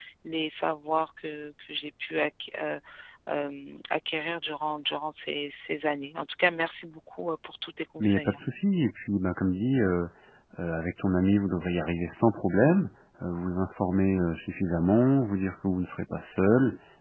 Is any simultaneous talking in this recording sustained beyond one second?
No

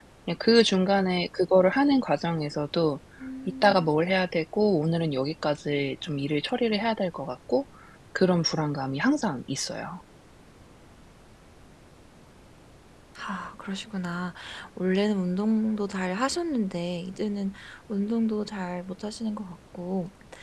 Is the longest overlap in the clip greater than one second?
No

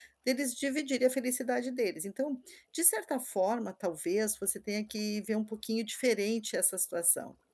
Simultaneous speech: No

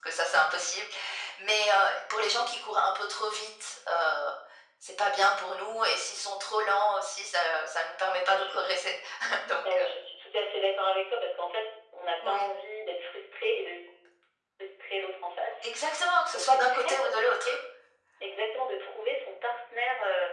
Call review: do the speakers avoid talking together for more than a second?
No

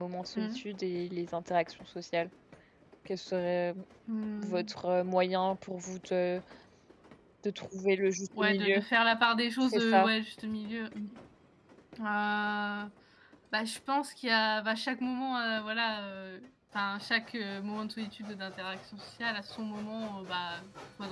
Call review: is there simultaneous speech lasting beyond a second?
No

